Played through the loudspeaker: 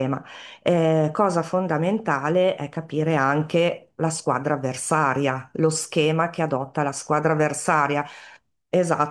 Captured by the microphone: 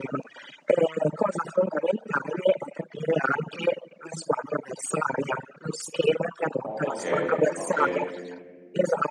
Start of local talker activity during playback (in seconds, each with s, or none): 6.6 s